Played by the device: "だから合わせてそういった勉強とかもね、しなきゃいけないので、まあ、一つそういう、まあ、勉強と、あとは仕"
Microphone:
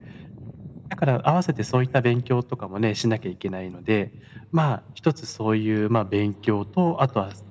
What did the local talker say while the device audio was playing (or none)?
none